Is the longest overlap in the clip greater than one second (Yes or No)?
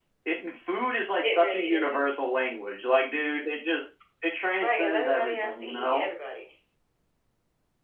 Yes